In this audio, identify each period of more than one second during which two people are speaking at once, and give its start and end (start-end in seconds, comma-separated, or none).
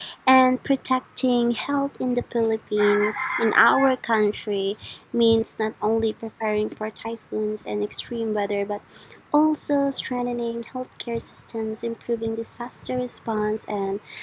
none